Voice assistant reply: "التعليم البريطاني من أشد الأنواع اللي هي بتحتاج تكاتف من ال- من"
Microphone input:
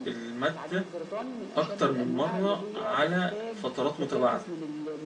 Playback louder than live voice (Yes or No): No